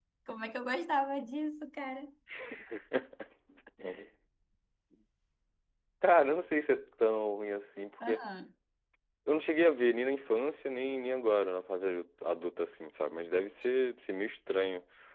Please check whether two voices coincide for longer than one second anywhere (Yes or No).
No